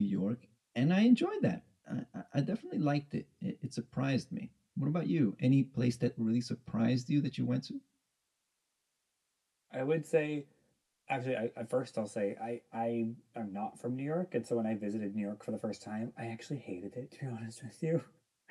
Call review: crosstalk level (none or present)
none